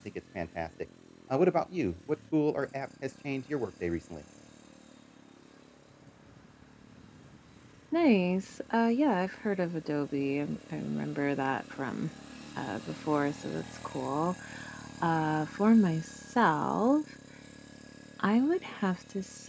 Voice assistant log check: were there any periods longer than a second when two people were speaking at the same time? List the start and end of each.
none

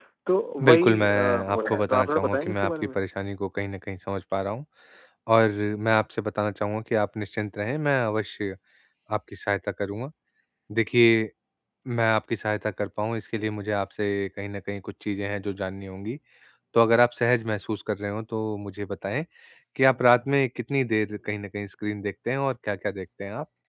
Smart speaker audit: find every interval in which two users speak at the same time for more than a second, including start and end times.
0.6-3.0

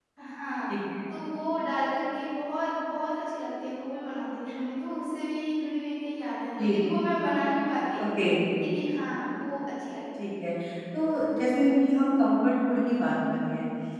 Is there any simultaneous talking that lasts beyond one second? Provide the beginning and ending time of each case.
none

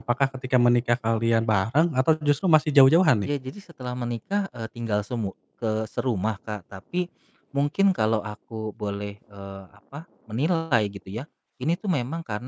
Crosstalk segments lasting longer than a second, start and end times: none

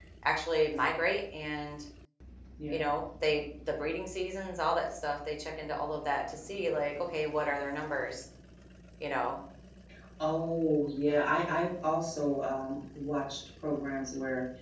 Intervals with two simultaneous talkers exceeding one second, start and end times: none

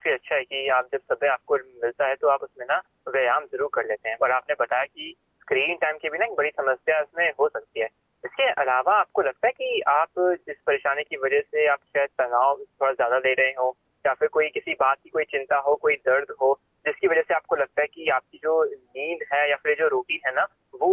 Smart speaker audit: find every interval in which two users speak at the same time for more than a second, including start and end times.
none

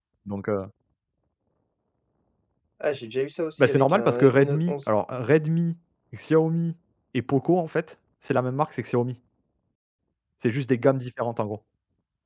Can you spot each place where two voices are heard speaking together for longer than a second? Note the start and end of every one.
3.6-4.9

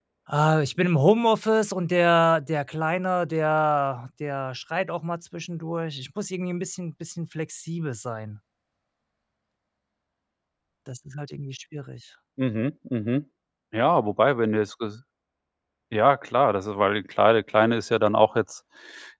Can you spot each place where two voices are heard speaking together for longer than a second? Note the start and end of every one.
none

